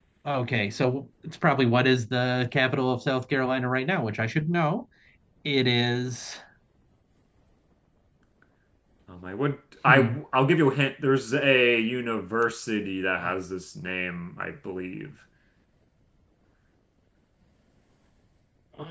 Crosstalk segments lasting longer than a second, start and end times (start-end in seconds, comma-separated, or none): none